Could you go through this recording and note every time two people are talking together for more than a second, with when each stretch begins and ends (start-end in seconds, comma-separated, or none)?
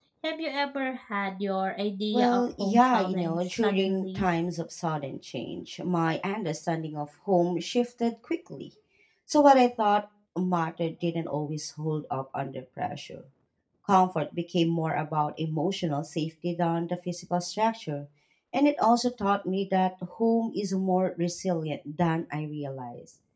2.1-4.2